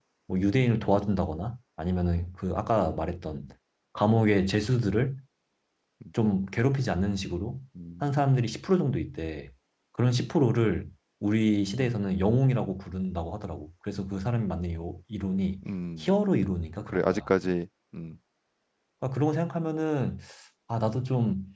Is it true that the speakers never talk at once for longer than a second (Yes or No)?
Yes